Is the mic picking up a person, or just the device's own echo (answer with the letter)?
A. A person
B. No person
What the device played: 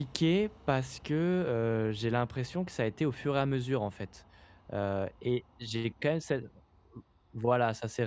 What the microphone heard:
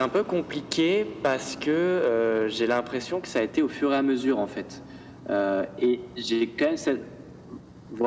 B